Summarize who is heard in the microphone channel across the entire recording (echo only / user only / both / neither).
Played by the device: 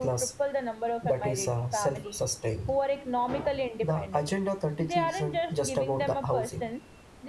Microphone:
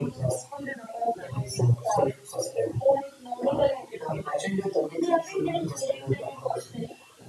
echo only